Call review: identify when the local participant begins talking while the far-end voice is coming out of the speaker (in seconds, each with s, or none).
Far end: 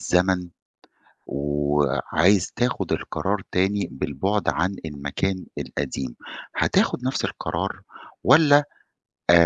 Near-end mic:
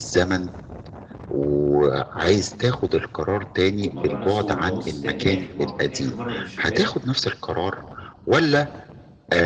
3.9 s